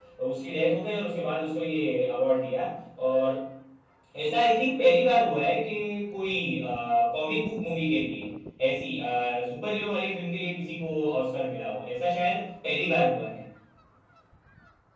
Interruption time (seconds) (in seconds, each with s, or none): none